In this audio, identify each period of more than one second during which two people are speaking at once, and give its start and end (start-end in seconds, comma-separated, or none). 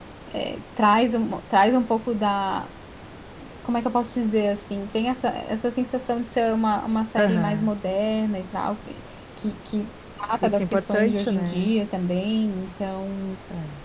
10.4-11.7